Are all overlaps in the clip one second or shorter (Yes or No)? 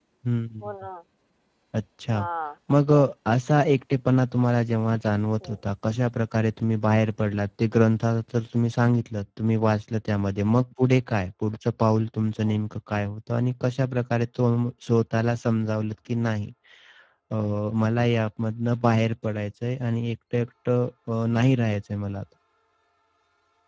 Yes